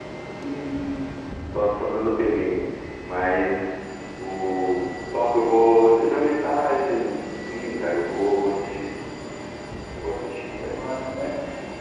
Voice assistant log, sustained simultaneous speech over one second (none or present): none